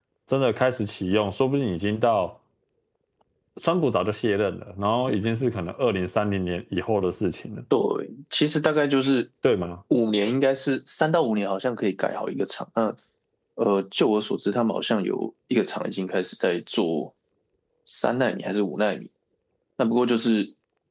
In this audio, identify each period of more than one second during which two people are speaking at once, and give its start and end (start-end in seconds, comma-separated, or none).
none